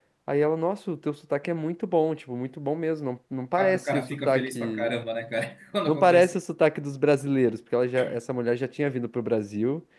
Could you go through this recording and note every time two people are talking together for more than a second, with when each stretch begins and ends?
3.6-5.0

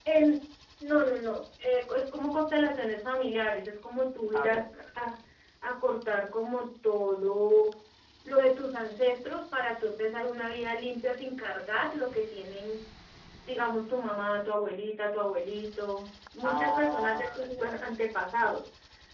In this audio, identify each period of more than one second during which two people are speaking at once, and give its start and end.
16.4-17.8

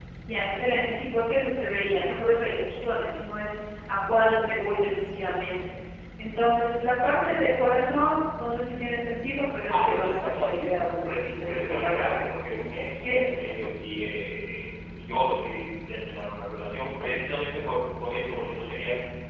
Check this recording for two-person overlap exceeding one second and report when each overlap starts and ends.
9.7-12.1

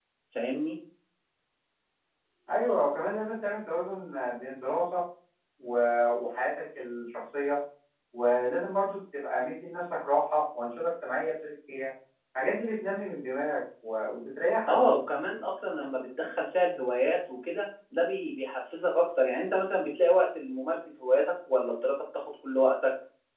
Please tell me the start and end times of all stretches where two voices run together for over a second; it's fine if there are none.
none

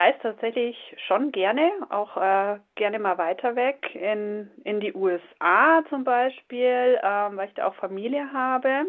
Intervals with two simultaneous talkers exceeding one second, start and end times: none

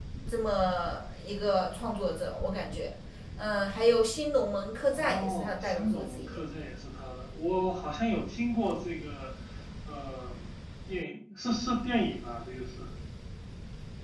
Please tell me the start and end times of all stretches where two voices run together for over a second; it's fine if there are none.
4.9-6.4

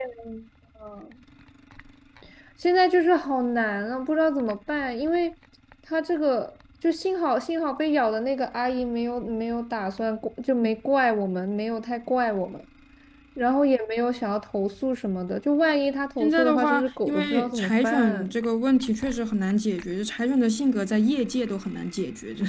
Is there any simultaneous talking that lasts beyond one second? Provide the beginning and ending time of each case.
16.2-18.3

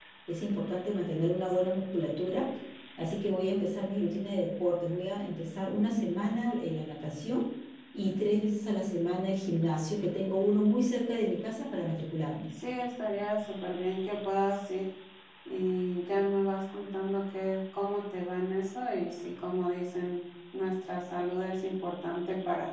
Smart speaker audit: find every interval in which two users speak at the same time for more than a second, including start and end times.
none

